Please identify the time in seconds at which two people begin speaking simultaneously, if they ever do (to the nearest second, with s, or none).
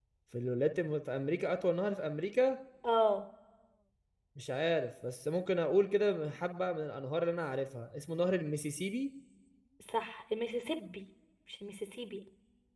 none